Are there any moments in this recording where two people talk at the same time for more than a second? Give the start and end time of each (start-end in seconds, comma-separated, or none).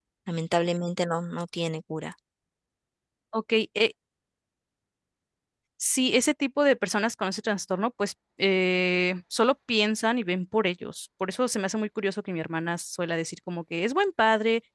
none